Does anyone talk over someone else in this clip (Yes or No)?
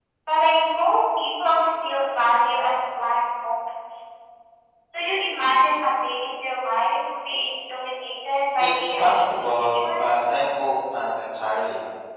Yes